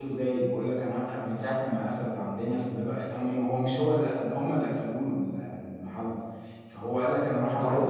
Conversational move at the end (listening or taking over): listening